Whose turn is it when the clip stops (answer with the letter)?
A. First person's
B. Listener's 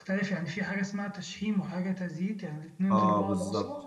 B